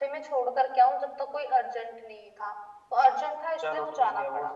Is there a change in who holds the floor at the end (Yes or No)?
Yes